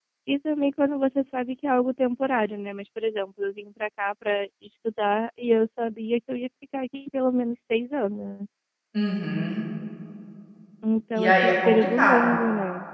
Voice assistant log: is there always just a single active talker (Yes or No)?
No